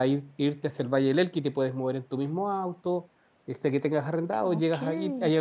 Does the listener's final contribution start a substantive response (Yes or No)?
No